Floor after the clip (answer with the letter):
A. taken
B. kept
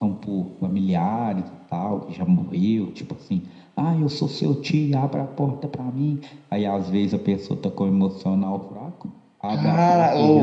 A